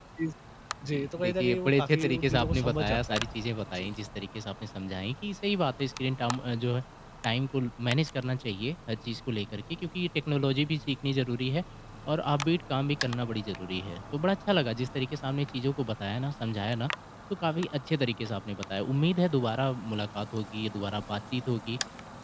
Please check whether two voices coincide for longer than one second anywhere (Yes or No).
Yes